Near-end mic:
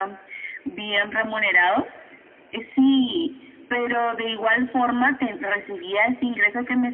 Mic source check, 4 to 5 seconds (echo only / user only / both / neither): echo only